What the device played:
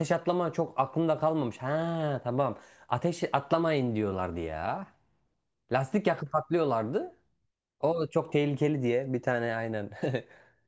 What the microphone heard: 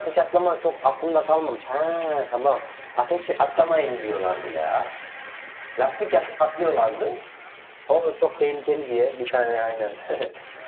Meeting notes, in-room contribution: none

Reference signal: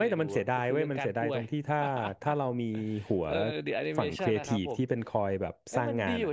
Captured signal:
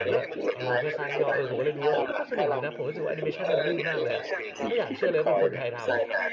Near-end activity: present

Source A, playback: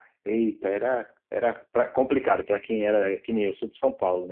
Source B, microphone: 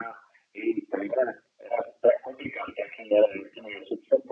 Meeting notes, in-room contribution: none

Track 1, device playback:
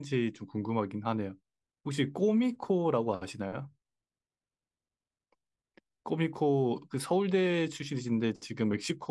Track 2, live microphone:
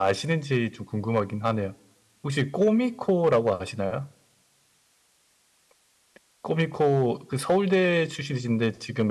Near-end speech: none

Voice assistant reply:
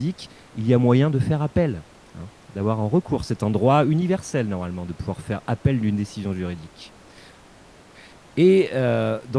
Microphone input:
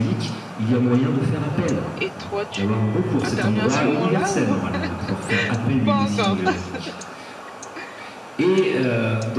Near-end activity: present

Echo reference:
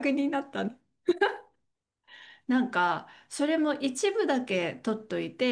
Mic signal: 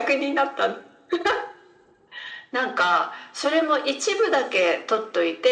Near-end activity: none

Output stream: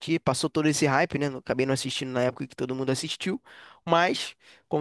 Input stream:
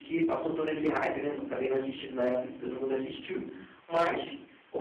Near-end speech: none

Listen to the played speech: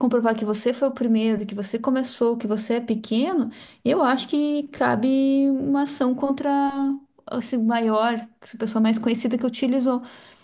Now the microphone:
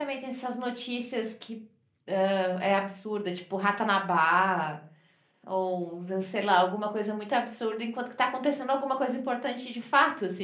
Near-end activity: present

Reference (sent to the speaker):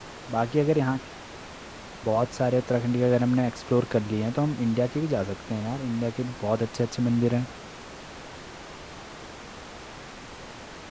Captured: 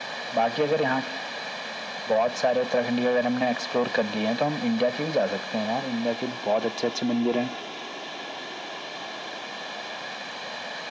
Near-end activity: none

